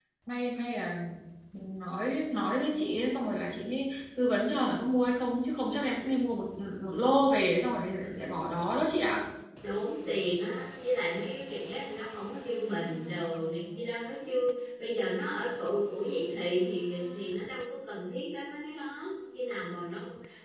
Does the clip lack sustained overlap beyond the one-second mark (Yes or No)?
Yes